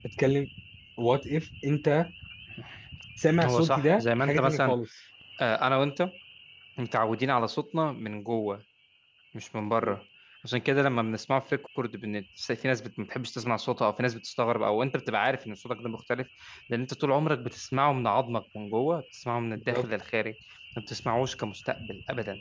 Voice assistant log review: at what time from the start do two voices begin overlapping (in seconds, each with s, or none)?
3.4 s